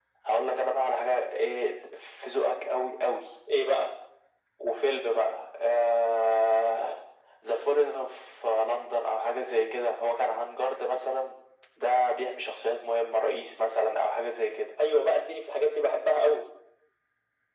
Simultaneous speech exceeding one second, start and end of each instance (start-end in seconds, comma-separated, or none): none